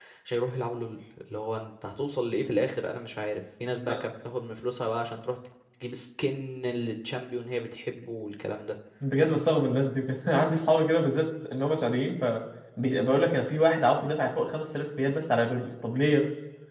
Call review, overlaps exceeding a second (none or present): none